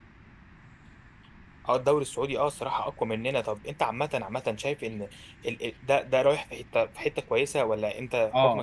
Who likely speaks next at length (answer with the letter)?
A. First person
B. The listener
B